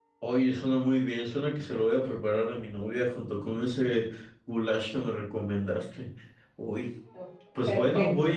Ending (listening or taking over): listening